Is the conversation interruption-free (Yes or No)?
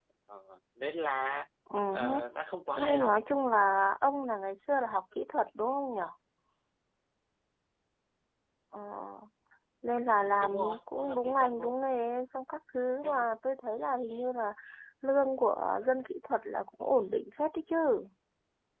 No